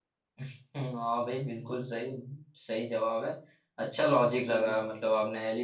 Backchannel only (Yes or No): Yes